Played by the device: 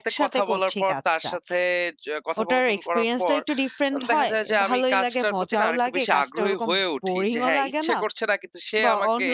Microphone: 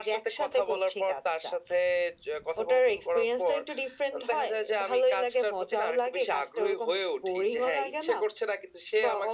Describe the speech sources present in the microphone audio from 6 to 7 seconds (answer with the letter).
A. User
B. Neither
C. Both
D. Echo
D